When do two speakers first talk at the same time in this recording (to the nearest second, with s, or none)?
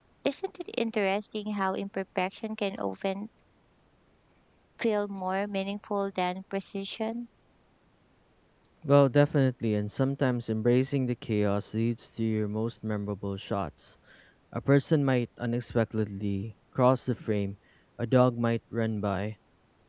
none